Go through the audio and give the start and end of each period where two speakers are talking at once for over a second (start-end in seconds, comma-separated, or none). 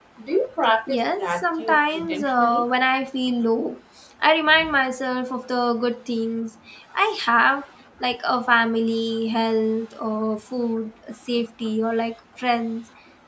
0.9-2.7